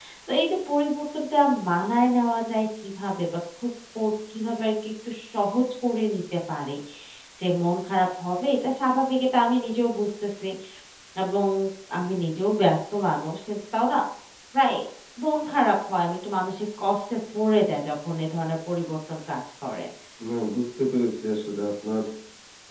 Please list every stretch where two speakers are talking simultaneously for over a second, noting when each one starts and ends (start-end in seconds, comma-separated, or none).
none